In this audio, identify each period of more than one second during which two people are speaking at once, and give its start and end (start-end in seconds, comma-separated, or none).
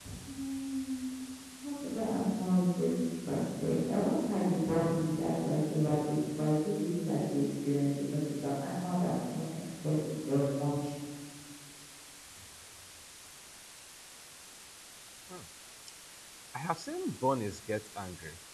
none